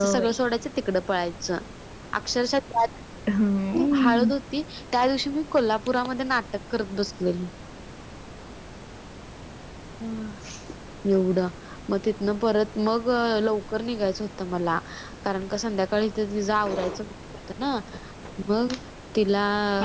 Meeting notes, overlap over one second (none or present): none